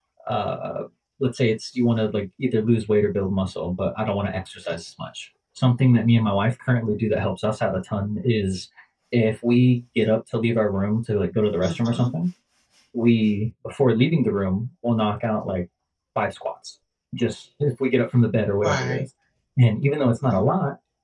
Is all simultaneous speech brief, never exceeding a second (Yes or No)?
Yes